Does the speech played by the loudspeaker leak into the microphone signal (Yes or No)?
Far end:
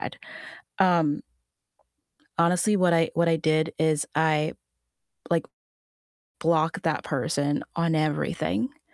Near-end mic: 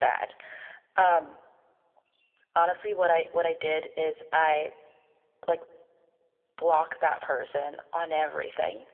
Yes